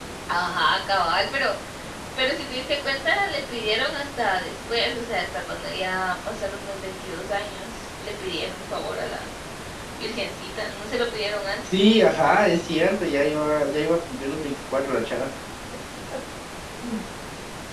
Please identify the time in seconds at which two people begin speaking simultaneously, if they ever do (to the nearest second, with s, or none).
none